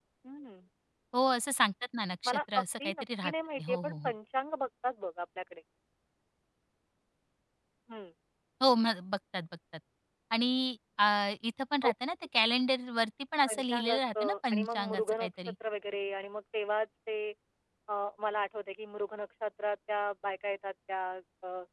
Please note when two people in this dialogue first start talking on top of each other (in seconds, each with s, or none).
2.2 s